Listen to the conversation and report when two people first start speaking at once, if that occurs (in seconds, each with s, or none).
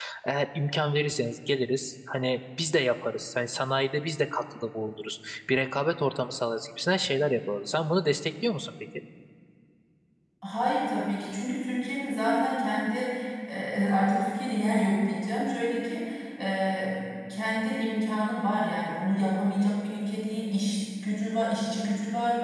none